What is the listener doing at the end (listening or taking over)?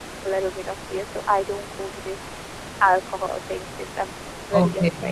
taking over